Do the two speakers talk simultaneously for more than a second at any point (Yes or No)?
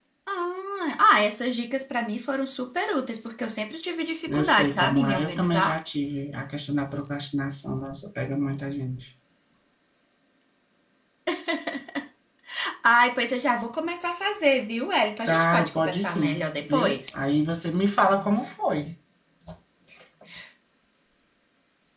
Yes